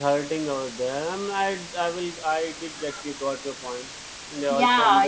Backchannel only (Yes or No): No